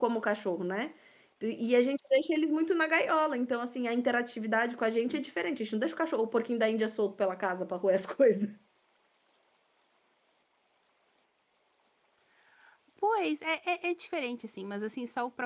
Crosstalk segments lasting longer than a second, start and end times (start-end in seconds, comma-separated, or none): none